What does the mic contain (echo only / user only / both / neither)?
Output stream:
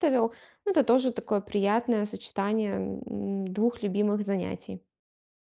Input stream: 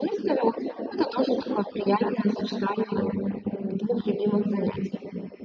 echo only